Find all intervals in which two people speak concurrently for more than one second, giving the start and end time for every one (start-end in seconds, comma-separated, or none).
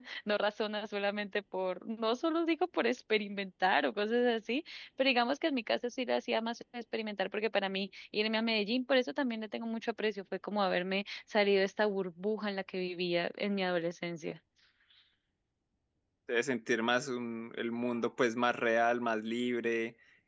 none